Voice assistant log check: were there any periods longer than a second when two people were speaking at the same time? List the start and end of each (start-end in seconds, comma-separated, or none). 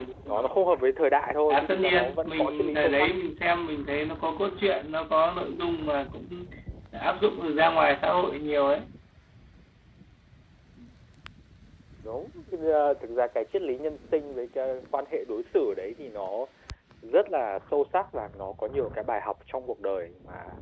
1.5-3.1